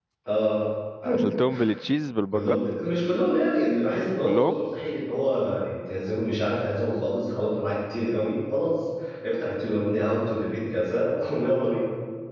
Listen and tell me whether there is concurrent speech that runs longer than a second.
No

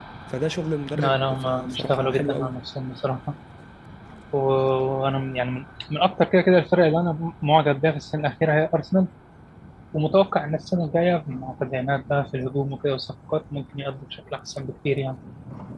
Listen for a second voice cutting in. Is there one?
Yes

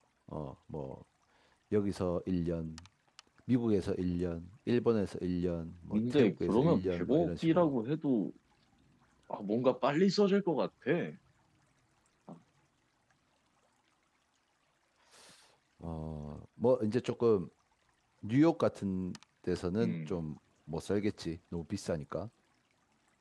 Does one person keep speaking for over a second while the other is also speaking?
Yes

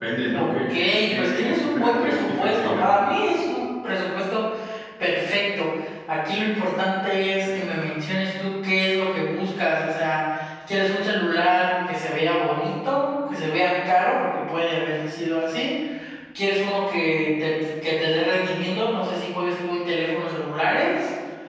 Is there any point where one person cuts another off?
Yes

